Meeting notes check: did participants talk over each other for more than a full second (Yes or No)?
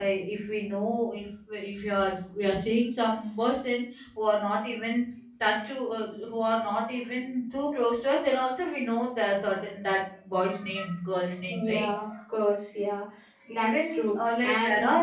Yes